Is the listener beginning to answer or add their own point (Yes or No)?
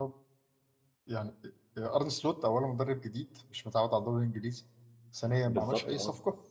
No